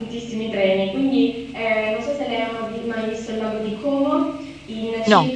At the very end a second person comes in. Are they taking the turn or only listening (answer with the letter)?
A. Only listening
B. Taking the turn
A